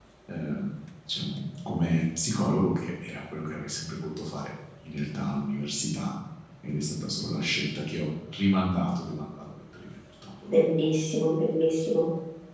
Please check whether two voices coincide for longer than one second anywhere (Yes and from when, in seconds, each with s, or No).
No